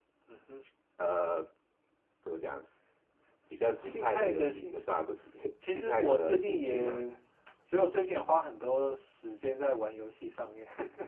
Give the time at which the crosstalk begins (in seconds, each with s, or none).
3.9 s